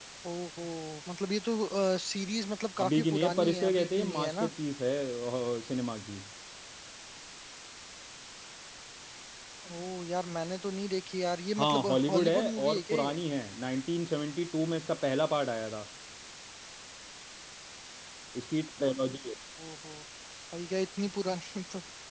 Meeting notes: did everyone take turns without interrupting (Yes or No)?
No